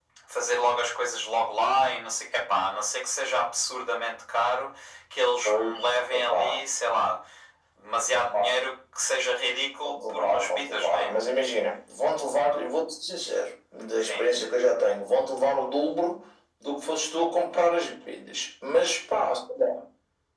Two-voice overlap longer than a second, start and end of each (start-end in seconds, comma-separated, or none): 9.8-11.2